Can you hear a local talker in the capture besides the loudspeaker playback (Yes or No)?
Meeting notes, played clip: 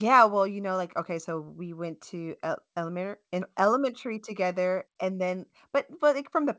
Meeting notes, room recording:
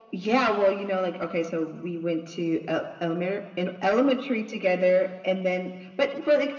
No